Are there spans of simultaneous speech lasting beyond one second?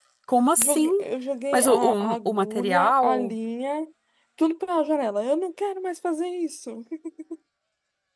Yes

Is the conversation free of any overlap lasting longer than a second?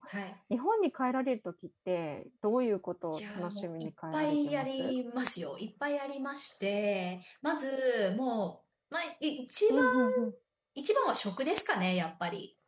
No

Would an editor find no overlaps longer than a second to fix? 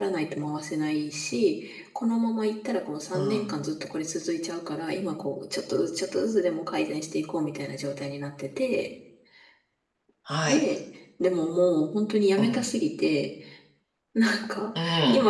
Yes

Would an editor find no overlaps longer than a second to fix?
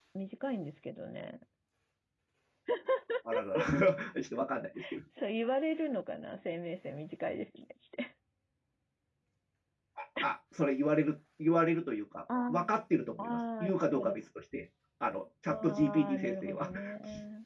No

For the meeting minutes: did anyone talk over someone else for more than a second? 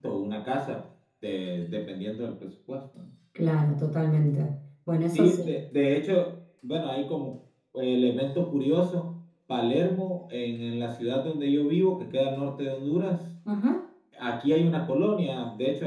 No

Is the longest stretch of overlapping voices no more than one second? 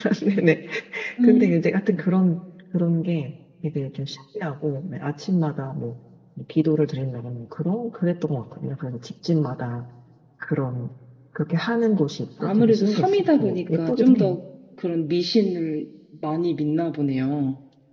No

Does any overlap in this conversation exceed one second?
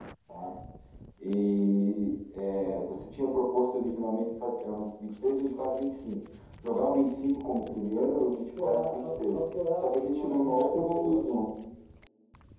Yes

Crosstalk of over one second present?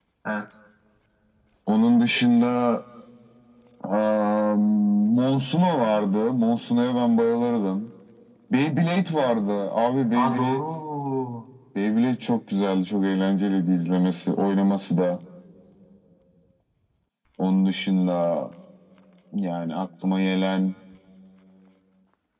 No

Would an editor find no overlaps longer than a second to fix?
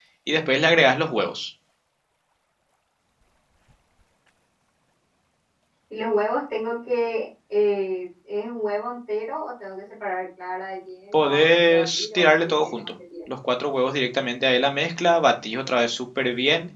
No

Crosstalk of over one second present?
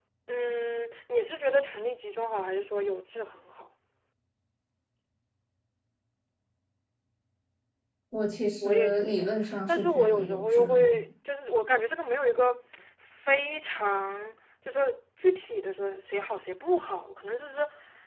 Yes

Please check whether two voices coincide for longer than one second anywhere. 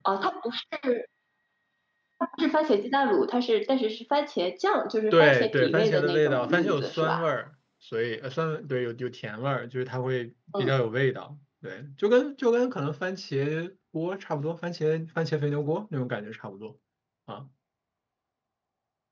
Yes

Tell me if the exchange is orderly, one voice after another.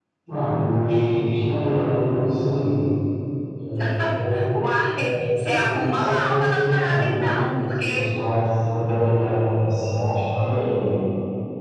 No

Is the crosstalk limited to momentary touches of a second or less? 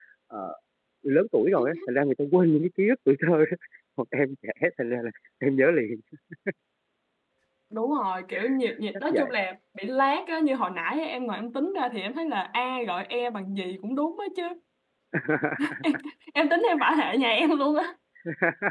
Yes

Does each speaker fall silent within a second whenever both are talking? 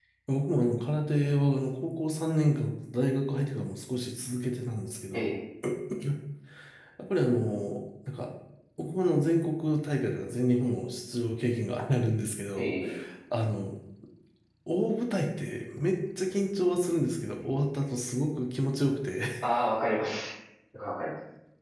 Yes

